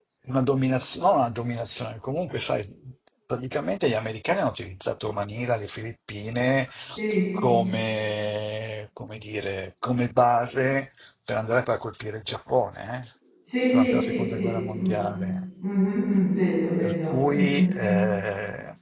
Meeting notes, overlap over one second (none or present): present